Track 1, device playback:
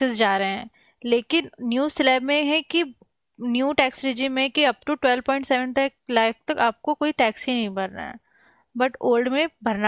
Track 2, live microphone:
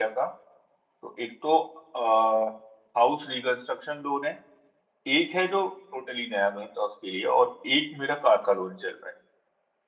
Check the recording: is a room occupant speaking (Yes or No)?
Yes